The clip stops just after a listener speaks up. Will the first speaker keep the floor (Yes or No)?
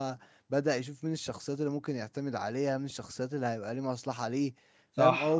No